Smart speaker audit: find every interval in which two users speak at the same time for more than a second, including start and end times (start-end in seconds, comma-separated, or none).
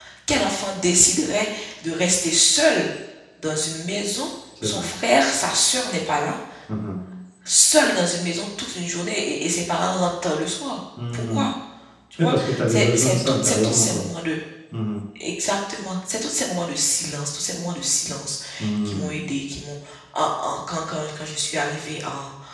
12.2-14.1